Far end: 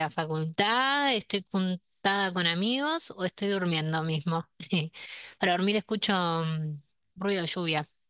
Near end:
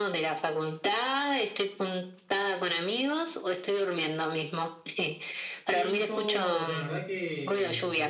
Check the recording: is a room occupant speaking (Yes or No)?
Yes